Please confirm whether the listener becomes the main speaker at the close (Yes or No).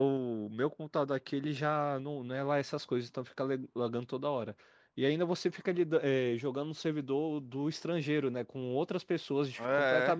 No